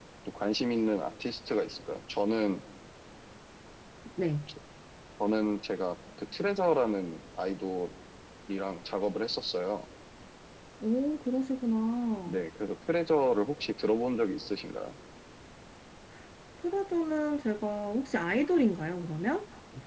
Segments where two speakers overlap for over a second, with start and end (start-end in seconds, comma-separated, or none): none